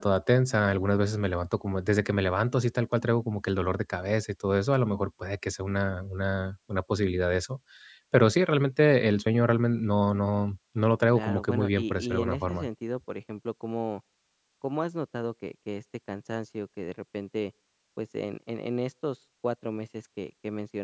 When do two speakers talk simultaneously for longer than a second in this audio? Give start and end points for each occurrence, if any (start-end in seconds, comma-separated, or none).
11.1-12.7